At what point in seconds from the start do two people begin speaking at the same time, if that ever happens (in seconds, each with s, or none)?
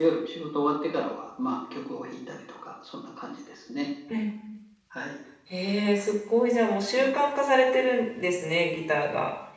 none